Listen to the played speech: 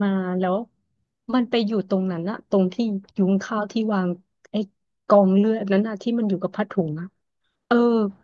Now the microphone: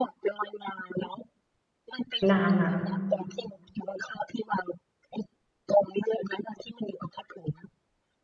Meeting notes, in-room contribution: present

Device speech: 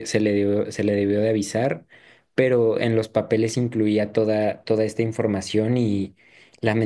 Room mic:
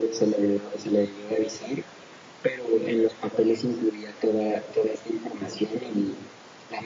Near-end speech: none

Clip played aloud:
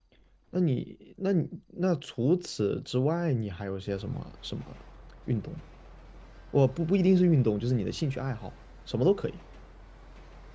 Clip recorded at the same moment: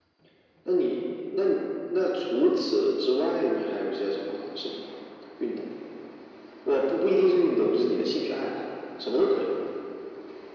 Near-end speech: none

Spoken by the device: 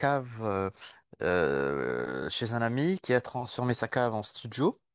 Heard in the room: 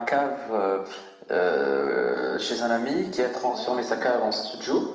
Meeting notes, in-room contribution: present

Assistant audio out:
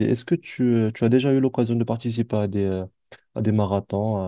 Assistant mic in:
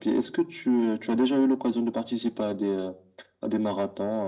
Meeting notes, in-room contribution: none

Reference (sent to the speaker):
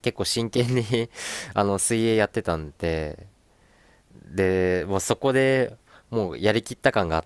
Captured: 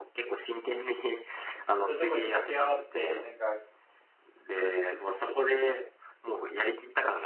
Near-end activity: present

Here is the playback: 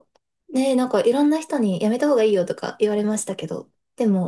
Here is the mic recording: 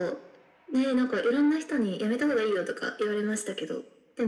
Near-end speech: none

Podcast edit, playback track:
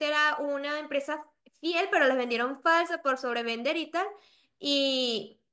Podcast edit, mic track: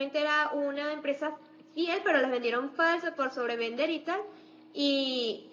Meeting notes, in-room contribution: none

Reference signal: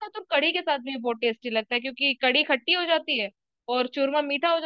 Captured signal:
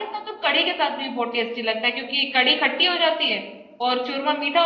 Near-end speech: none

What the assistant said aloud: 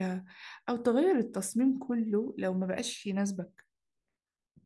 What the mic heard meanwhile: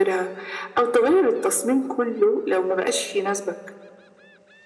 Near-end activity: none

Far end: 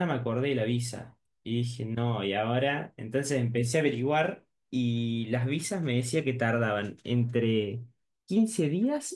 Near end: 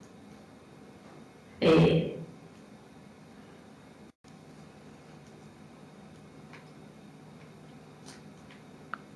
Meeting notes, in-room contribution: present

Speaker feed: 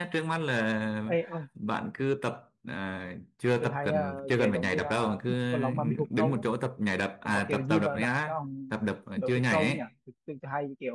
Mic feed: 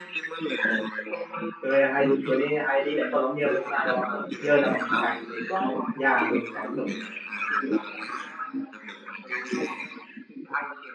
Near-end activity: present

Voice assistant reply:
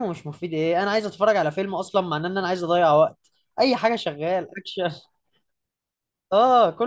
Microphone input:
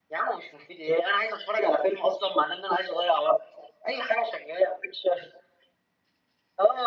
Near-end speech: none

